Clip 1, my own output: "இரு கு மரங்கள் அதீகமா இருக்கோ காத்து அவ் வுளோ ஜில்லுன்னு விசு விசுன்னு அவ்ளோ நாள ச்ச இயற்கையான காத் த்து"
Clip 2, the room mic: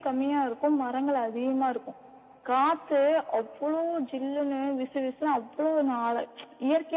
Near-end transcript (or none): none